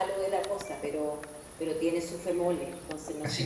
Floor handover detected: Yes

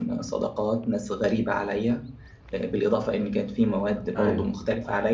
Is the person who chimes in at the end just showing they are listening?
Yes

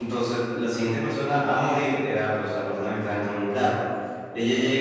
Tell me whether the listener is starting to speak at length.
No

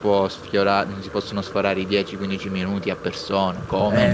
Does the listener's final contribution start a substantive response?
Yes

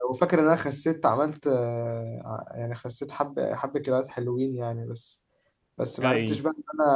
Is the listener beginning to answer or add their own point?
No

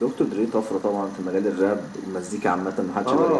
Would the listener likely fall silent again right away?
No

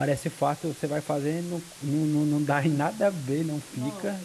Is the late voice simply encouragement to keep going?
Yes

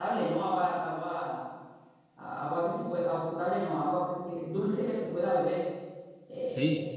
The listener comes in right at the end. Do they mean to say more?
Yes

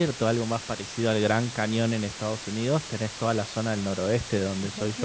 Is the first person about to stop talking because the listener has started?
No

